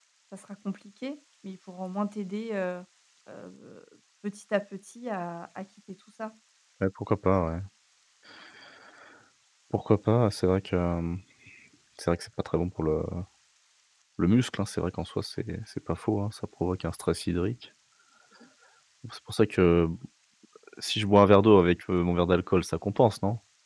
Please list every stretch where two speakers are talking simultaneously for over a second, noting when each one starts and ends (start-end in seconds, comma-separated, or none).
none